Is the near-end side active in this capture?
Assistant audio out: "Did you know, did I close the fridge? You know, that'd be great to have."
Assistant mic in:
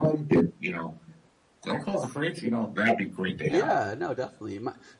Yes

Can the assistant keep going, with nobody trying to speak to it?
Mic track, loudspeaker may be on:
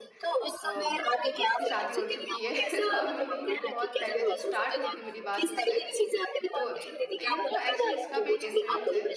No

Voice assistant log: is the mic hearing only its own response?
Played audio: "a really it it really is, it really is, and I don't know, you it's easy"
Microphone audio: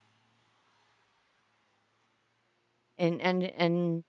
No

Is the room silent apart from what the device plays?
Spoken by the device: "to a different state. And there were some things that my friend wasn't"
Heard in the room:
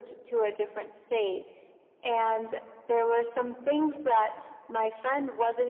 Yes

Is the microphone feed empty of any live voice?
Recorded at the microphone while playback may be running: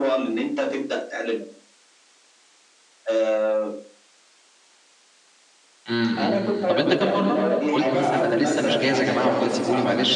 No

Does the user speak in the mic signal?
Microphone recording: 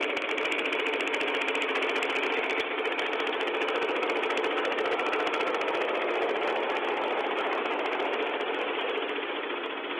No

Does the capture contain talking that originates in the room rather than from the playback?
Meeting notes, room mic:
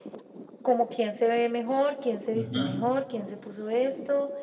Yes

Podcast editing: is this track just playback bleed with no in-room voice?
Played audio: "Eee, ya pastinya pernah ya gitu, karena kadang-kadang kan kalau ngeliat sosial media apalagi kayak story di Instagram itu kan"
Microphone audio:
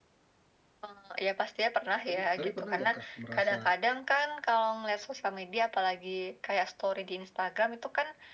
No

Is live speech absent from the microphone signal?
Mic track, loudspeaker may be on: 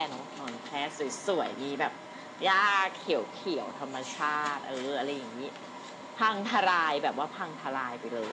Yes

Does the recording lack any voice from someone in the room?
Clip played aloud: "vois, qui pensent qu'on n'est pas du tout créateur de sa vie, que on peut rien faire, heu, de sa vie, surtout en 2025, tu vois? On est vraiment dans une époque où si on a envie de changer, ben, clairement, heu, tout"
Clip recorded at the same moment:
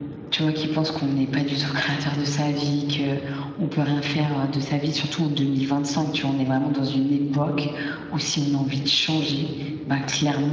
Yes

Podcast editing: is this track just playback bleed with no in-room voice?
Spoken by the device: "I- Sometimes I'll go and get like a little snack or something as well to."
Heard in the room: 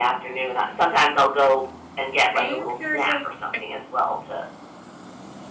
No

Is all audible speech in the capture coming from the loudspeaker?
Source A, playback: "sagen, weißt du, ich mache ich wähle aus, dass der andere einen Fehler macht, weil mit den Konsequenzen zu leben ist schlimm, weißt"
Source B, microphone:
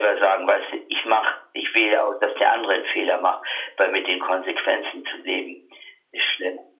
Yes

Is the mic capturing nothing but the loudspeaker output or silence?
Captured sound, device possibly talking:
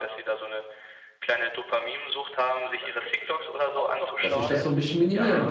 No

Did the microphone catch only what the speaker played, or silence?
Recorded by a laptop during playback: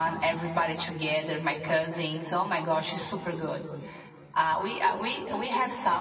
Yes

